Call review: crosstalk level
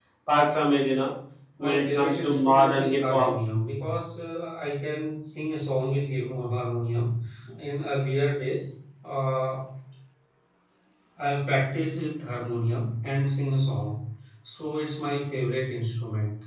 present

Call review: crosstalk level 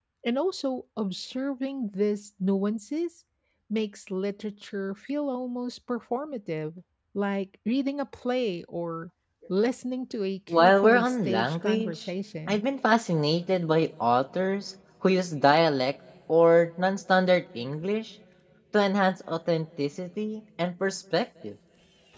present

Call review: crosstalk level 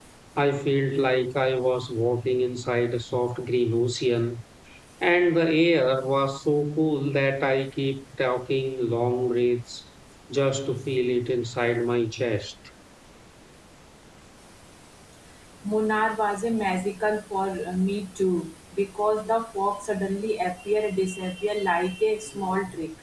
none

